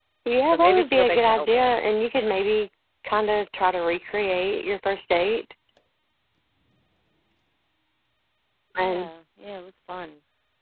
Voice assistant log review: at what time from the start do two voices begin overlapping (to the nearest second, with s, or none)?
1 s